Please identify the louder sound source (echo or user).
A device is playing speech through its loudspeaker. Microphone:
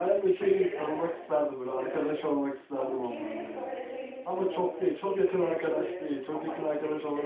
user